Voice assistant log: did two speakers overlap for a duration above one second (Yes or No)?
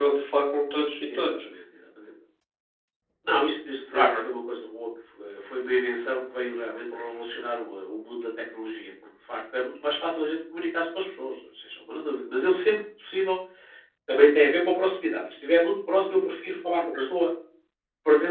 No